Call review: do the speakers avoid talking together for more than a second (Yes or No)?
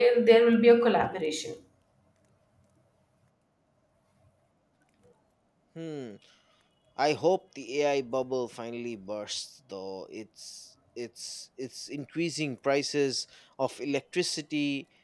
Yes